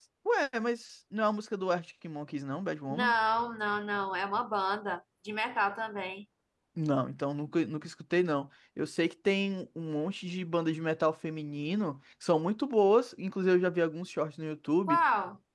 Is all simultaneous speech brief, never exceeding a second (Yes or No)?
Yes